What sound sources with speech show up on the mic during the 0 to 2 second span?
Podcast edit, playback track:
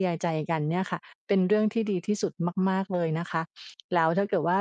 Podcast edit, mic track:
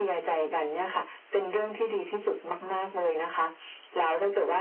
echo only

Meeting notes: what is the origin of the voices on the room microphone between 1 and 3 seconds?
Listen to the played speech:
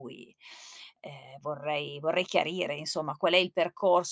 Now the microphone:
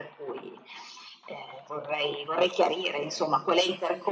echo only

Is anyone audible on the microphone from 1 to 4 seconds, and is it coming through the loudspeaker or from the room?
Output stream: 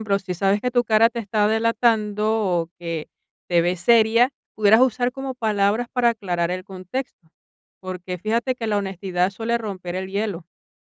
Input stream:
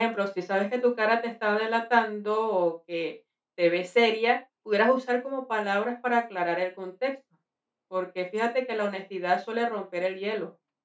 echo only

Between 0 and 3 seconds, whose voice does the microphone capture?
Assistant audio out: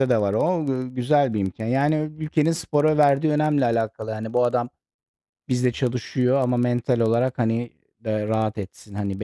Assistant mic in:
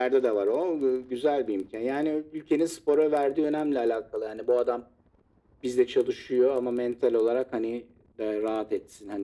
echo only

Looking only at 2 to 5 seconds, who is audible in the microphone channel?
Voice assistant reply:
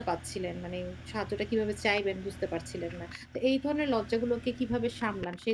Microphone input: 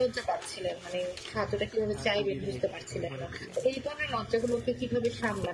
both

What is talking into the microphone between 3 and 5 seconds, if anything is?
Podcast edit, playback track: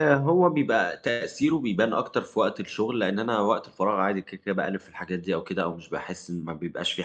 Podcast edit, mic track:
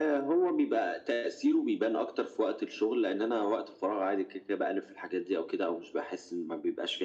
echo only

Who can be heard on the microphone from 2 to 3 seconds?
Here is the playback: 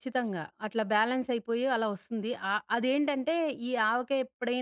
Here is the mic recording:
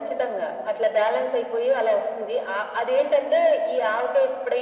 echo only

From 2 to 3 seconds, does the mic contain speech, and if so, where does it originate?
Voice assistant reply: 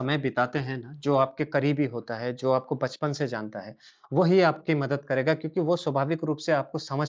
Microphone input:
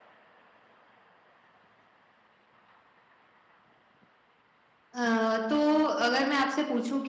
neither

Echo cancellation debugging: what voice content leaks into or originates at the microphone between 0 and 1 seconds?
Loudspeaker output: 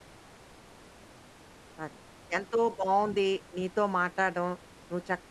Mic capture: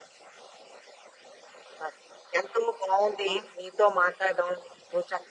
neither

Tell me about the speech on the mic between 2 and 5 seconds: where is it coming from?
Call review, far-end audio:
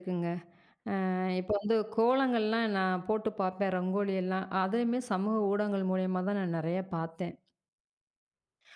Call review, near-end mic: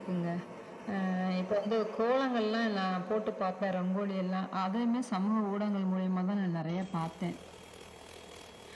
echo only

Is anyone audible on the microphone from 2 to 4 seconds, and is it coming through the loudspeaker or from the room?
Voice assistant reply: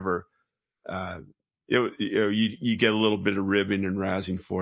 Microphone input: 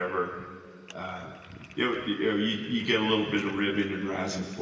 echo only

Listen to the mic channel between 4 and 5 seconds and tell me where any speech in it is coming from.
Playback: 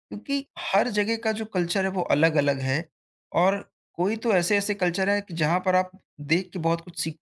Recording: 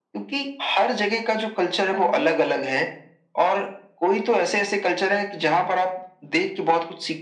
echo only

